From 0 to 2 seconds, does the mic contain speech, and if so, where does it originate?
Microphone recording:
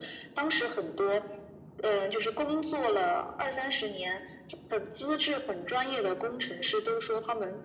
echo only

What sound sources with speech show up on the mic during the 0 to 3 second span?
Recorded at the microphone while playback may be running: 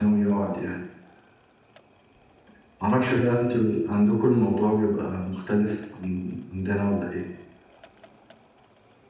user only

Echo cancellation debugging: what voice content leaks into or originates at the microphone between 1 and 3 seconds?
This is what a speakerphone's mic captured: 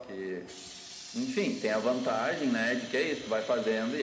echo only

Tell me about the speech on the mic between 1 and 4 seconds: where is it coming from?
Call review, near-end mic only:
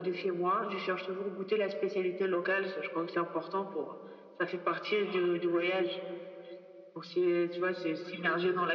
echo only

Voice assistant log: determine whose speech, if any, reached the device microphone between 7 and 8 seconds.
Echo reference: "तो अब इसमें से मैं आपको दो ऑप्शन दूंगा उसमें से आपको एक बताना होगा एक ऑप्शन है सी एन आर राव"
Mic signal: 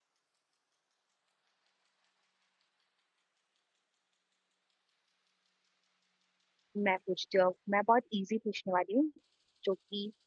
user only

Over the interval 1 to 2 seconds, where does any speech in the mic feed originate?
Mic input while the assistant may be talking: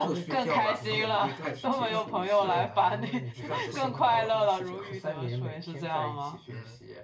both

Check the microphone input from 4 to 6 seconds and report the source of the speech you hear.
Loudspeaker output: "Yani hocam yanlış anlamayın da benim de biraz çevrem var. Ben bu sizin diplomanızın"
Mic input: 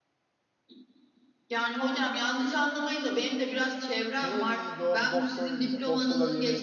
both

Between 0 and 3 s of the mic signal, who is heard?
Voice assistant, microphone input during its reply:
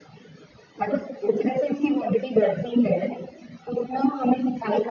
echo only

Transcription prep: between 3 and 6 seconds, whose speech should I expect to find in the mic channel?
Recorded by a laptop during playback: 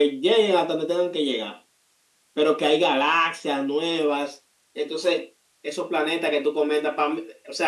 echo only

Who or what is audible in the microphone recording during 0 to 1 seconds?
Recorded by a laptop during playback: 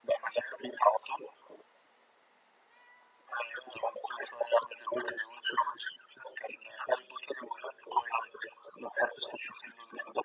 echo only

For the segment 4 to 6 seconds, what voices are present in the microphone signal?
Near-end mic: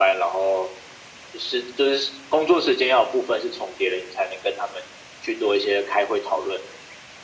echo only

